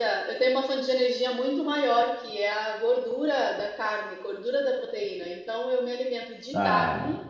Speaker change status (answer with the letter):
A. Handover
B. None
B